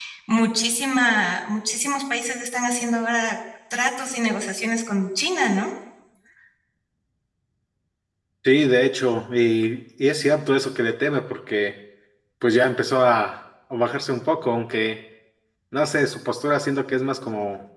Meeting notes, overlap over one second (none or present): none